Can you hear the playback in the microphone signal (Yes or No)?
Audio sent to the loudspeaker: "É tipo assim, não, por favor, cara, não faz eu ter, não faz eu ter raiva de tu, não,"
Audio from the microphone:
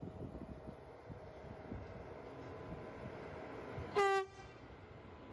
No